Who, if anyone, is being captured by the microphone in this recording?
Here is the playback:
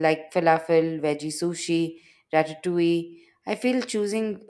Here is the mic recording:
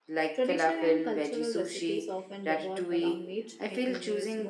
both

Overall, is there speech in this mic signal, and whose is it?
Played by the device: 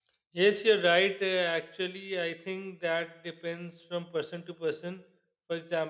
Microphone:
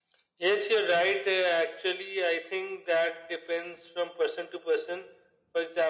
echo only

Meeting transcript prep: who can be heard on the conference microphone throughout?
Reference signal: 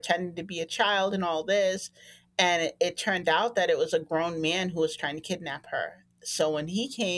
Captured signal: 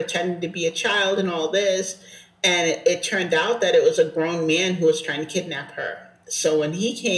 echo only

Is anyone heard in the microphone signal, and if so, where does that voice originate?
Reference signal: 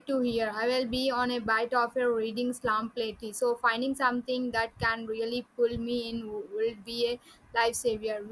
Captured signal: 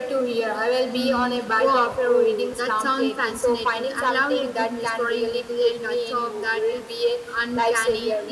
both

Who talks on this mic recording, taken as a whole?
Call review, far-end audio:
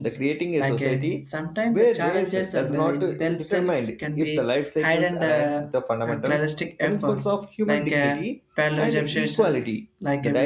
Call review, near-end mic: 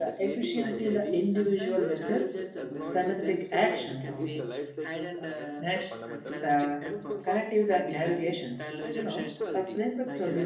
both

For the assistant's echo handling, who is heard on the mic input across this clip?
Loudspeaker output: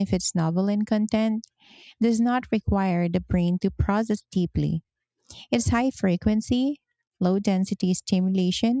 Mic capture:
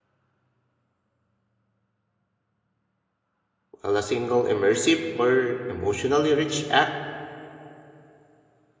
user only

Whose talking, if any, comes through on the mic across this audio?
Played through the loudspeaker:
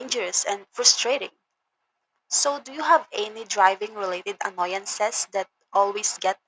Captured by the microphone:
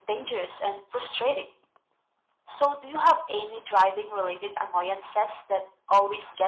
echo only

